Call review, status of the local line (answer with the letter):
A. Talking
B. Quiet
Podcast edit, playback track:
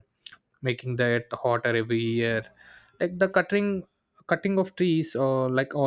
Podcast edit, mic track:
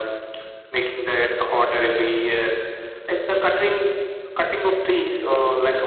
B